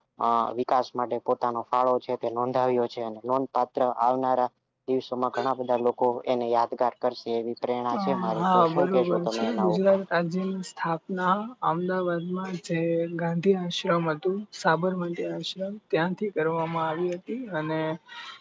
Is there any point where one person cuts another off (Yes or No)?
Yes